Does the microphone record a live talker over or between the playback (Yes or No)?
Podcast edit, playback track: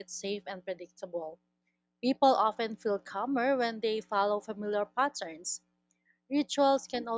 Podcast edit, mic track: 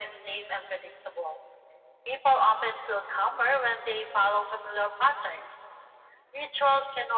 No